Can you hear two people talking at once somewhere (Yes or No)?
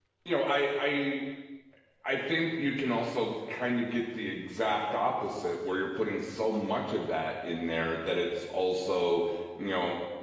No